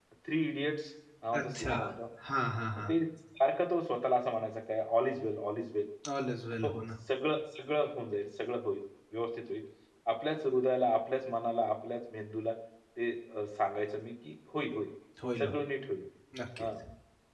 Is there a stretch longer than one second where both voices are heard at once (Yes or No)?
No